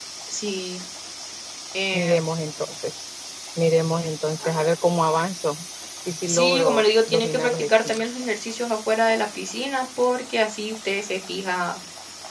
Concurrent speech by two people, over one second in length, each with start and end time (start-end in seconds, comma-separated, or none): 6.3-8.0